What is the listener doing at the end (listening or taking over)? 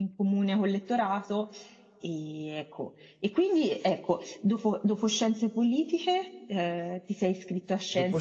taking over